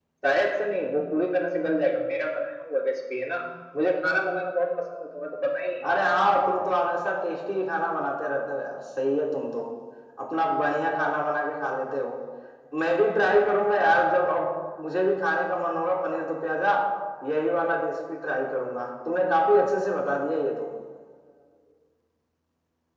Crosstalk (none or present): none